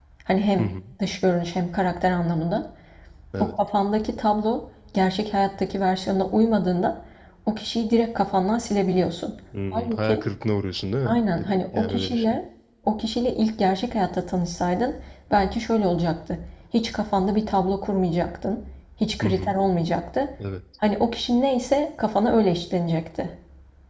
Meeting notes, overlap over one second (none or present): present